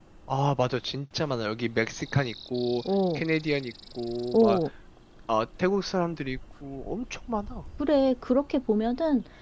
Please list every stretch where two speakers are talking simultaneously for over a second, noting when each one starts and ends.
none

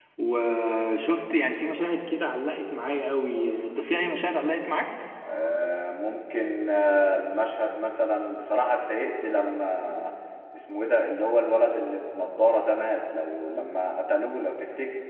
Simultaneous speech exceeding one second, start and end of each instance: none

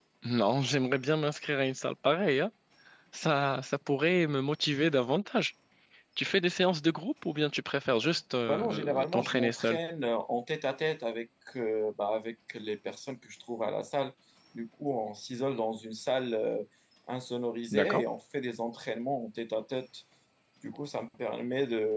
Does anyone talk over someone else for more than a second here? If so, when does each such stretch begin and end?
8.5-9.8

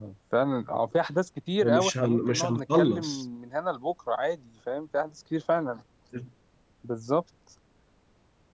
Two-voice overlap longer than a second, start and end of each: 1.6-3.0

